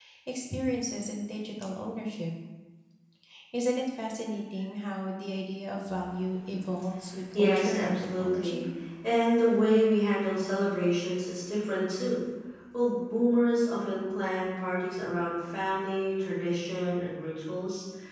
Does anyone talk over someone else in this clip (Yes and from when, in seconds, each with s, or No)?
Yes, from 7.3 s